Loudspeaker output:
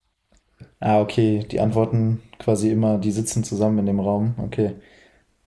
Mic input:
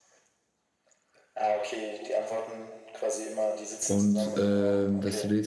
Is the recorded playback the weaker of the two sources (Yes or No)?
Yes